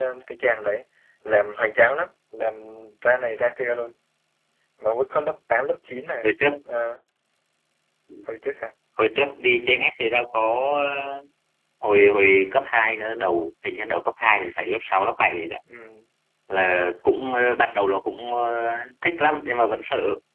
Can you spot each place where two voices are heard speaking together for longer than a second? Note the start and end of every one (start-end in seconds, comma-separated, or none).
none